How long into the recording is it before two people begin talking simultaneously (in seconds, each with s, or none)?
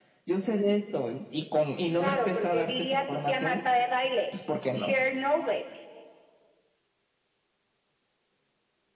2.0 s